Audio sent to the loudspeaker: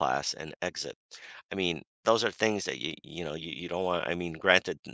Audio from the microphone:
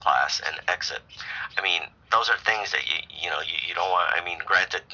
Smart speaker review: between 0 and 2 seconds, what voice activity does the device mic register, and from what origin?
echo only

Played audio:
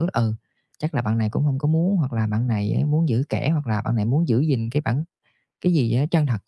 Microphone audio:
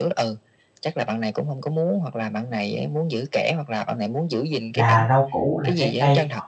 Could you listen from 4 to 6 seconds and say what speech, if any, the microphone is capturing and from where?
both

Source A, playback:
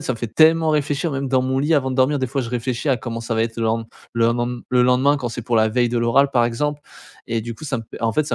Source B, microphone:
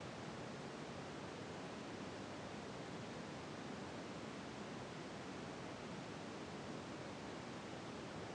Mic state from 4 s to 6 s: neither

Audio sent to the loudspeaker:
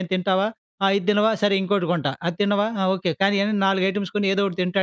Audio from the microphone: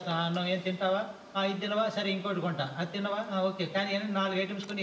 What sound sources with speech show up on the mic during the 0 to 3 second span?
echo only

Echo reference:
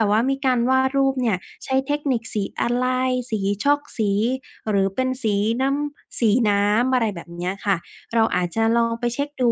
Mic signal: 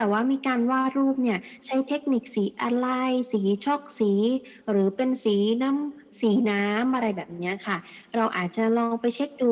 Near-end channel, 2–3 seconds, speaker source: echo only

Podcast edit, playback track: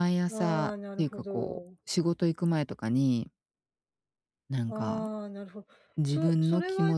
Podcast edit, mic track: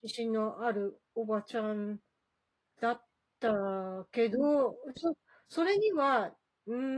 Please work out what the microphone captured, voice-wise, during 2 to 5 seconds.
user only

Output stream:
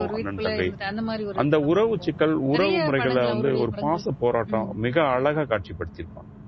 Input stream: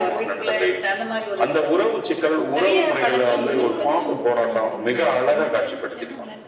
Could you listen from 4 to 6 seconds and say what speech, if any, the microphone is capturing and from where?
both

